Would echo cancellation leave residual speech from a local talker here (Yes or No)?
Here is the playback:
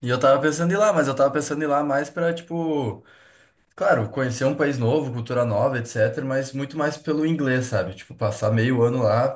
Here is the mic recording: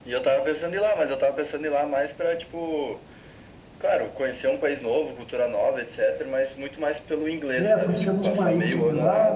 Yes